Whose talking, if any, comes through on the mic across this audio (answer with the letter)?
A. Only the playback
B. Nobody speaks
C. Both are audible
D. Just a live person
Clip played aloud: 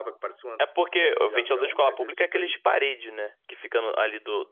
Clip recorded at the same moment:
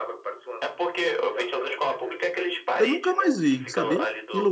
C